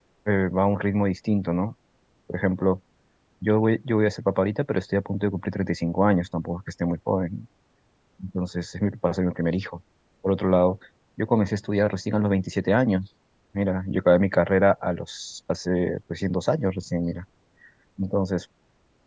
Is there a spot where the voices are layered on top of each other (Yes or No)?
No